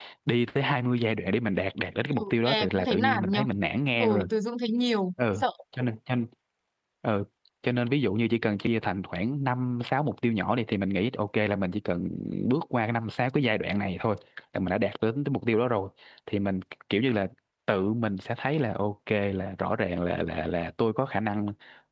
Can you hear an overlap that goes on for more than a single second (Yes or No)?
Yes